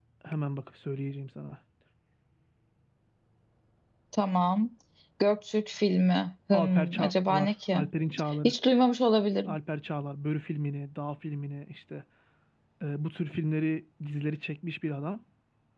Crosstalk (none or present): present